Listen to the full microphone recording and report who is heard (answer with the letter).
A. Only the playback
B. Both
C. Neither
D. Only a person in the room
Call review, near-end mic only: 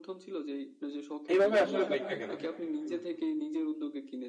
B